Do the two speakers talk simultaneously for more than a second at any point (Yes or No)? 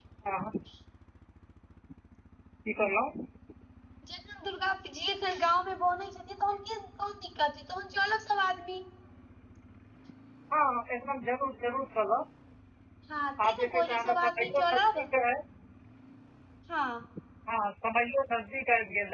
Yes